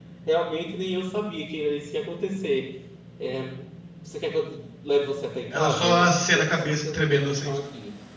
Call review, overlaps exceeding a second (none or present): present